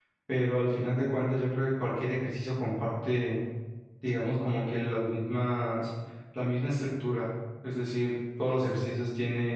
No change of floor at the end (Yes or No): Yes